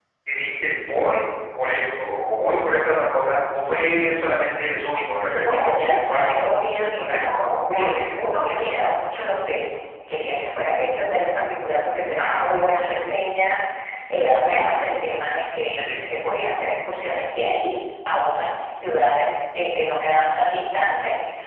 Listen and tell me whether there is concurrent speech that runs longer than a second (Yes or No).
Yes